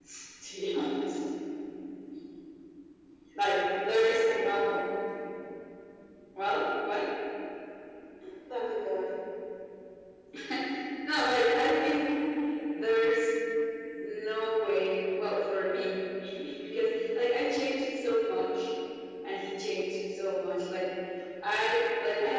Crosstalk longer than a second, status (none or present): present